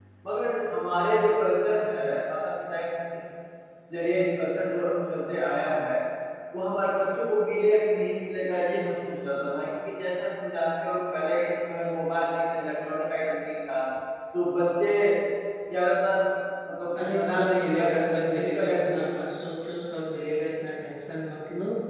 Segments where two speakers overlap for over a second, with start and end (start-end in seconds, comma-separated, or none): 17.1-19.0